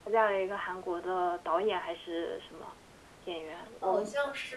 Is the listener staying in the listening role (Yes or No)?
No